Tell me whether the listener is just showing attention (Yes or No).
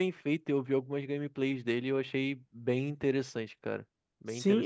No